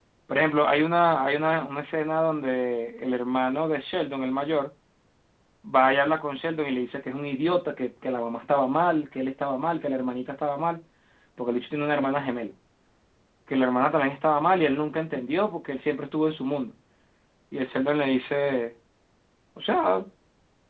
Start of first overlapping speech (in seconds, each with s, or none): none